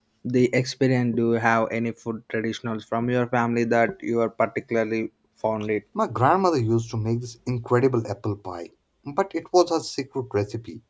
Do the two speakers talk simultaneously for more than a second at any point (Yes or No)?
No